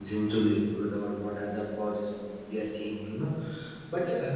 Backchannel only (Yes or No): Yes